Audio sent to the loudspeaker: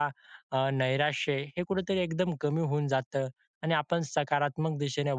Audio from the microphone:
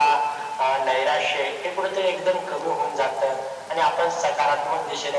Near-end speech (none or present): none